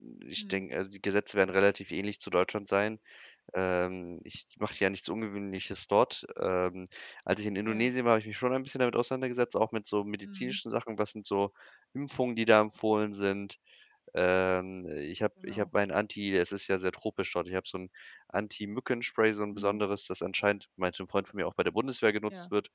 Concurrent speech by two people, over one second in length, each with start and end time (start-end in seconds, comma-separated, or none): none